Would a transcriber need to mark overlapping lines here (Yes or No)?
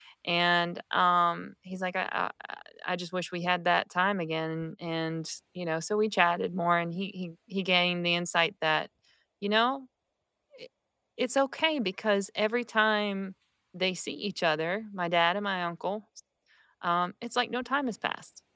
No